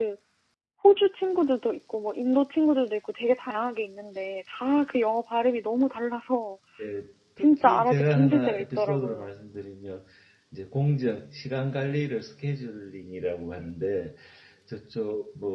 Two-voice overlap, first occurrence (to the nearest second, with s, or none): 7 s